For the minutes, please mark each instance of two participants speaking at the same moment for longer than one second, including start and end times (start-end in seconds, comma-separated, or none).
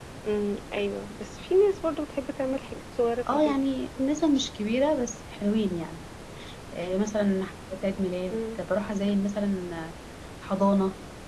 none